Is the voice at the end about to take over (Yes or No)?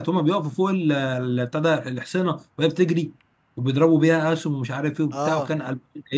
No